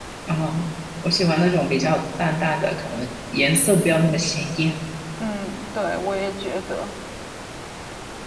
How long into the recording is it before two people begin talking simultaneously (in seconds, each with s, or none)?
none